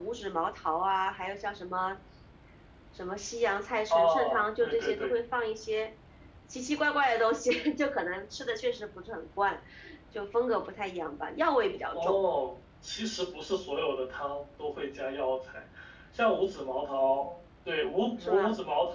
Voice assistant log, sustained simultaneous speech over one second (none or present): present